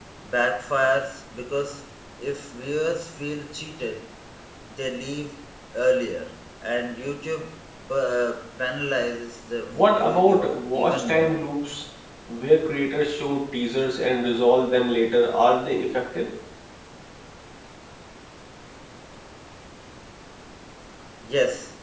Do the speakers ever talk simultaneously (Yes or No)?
Yes